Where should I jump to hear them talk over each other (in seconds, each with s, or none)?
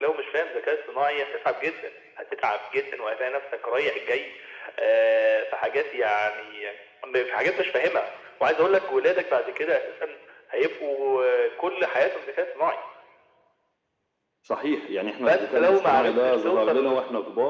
15.3 s